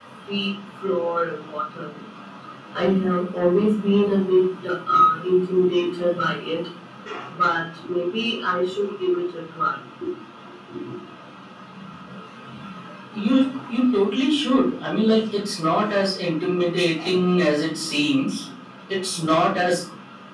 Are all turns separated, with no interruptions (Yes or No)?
Yes